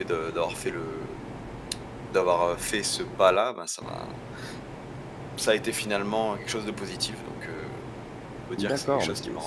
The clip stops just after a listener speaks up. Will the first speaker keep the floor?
No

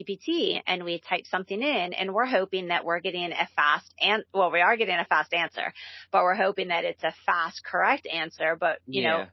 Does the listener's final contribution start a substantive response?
No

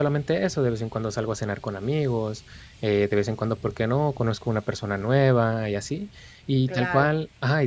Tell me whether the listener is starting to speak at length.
No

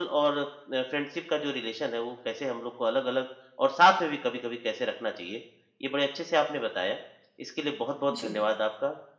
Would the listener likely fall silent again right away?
Yes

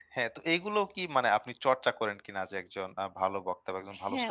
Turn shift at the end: Yes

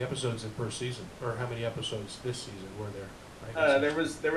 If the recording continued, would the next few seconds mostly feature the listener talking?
Yes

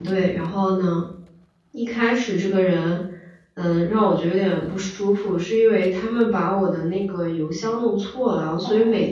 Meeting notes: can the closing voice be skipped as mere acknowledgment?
Yes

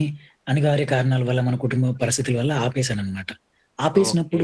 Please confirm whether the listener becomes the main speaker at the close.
No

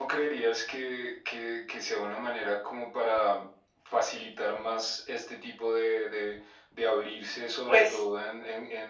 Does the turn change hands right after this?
No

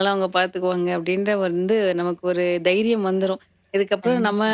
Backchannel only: Yes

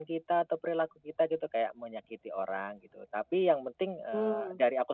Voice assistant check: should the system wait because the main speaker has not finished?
Yes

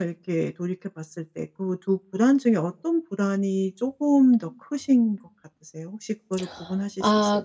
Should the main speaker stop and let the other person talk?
Yes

